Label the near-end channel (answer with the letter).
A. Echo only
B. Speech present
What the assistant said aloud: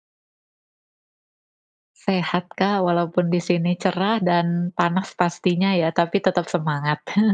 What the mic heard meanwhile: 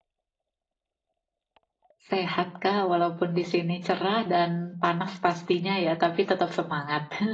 A